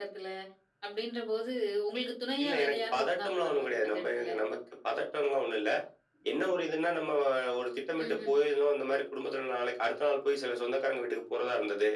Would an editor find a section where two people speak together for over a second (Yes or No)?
Yes